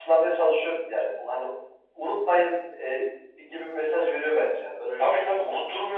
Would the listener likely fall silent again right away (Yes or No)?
No